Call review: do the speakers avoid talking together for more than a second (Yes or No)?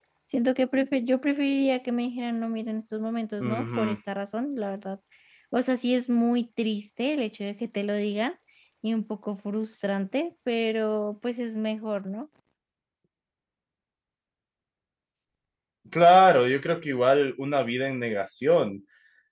Yes